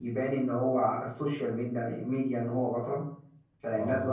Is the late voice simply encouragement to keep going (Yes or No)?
Yes